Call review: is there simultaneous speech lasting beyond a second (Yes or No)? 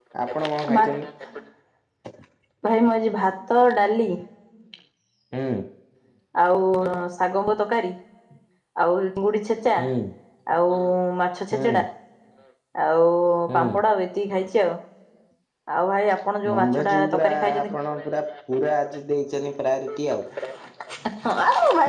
Yes